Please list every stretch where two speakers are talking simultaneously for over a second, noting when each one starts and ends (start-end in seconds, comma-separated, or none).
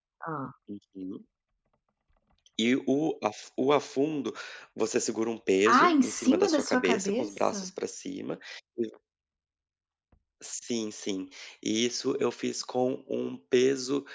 5.7-7.7